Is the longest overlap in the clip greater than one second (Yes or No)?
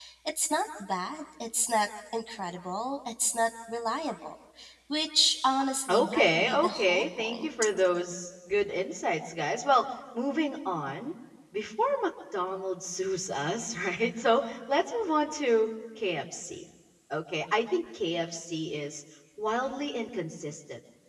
Yes